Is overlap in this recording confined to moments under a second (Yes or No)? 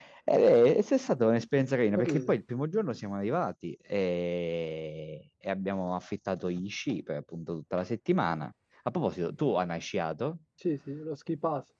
Yes